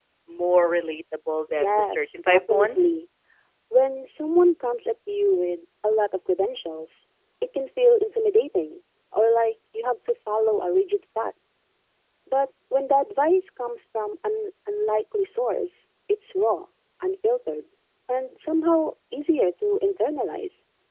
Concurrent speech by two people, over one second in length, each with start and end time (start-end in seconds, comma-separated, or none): 1.5-3.0